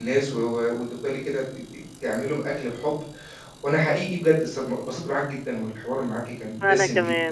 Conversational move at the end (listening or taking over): listening